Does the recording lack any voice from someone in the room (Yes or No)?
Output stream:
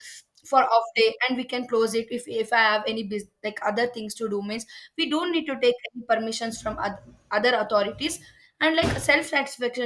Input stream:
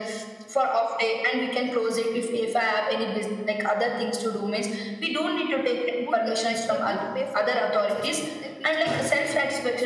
No